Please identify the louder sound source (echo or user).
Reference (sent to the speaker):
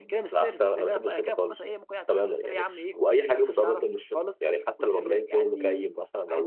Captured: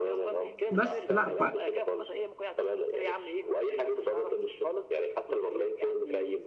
user